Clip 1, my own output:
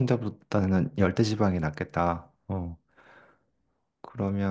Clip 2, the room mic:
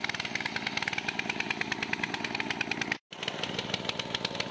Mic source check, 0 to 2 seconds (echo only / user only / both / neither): neither